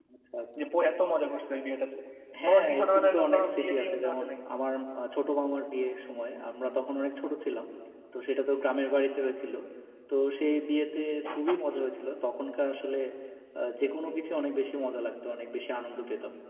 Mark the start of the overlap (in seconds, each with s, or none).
2.5 s